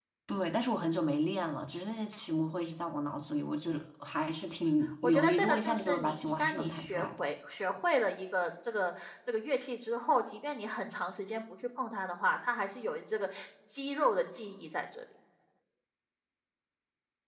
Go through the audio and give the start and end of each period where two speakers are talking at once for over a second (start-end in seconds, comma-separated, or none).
5.0-7.2